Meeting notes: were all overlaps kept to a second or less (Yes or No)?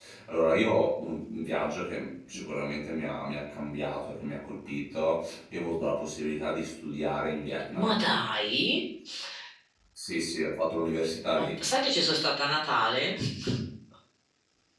Yes